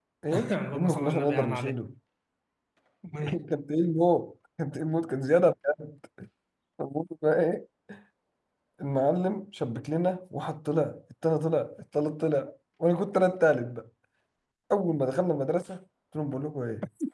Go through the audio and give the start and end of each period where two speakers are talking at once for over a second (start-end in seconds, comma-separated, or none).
0.5-1.8